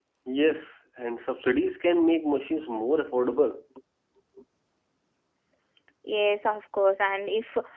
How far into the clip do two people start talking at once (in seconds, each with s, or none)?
none